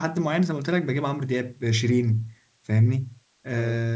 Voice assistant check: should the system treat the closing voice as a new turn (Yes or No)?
No